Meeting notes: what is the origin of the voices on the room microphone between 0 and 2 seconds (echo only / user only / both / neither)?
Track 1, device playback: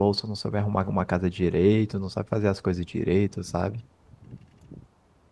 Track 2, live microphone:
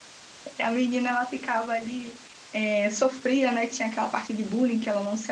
user only